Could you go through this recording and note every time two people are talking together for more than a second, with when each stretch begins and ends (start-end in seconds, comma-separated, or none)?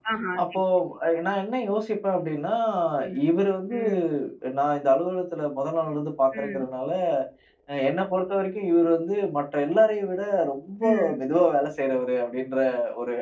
none